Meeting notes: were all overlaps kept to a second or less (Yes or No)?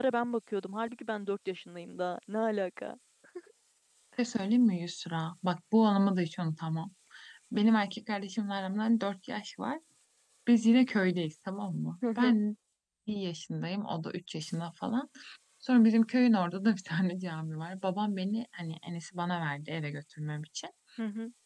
Yes